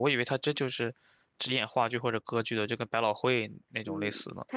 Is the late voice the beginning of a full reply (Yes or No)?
Yes